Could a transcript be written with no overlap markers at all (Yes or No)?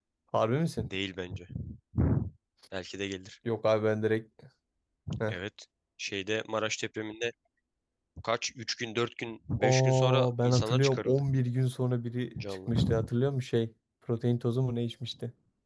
No